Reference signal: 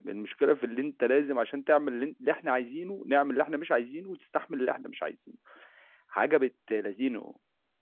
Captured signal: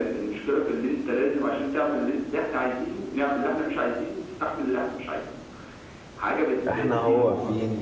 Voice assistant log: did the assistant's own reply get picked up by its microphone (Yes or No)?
Yes